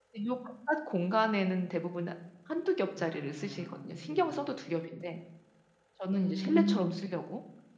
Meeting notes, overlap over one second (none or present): present